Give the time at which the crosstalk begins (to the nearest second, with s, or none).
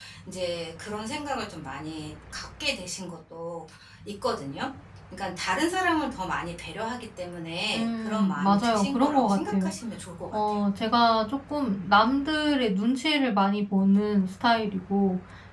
8 s